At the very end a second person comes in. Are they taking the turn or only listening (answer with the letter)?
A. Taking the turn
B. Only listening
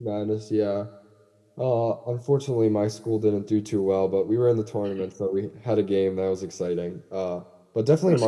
B